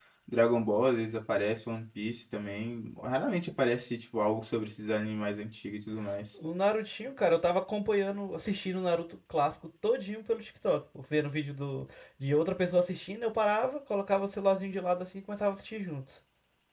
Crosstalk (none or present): none